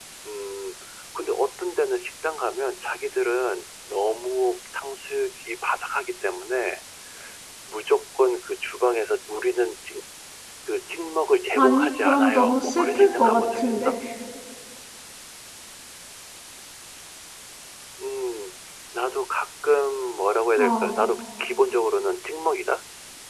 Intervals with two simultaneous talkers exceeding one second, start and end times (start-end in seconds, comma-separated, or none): 11.6-13.9